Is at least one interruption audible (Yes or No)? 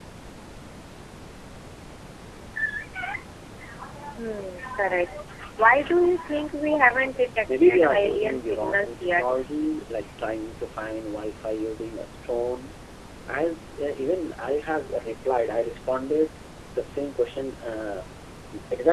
Yes